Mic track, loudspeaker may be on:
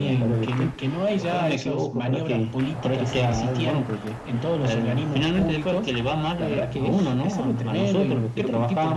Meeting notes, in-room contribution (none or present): none